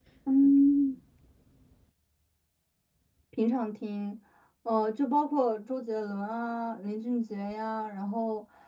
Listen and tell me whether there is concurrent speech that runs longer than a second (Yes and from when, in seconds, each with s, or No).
No